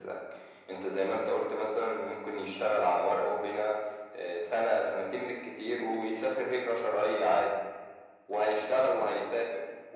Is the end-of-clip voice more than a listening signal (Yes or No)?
No